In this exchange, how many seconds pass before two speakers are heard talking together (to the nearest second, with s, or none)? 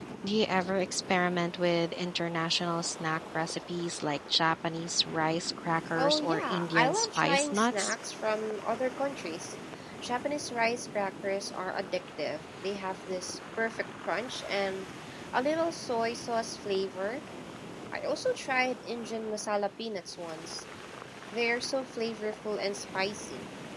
6 s